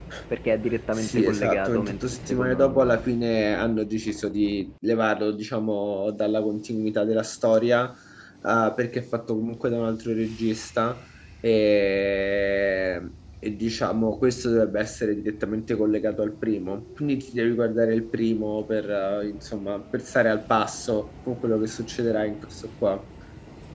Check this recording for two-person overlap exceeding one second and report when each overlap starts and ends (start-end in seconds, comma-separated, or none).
0.9-3.0